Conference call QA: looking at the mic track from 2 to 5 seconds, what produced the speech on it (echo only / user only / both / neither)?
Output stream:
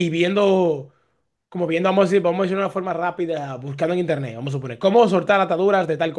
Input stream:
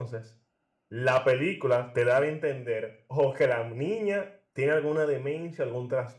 user only